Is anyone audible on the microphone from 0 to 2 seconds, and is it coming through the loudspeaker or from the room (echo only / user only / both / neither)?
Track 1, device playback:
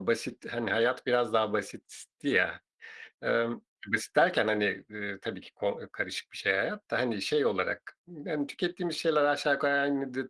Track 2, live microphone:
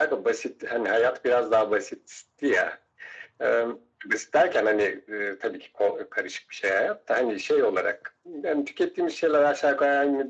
echo only